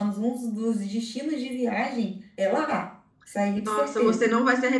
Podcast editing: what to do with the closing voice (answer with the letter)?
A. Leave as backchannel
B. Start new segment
B